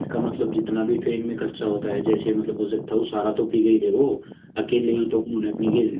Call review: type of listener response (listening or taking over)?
listening